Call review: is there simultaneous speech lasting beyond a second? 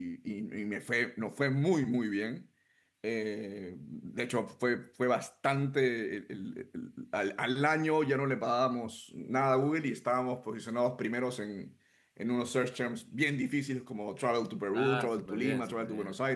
Yes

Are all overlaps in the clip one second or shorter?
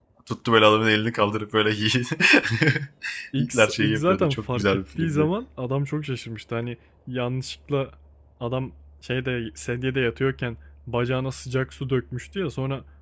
No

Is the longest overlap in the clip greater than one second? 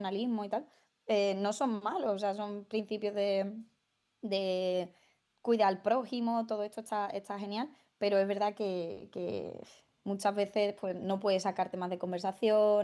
No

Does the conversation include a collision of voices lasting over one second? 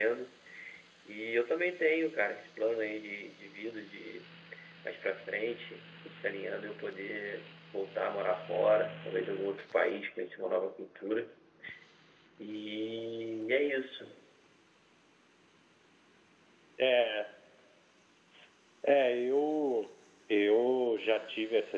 No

